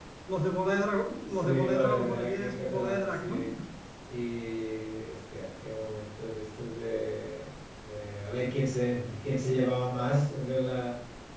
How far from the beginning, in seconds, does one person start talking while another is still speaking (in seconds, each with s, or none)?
1.3 s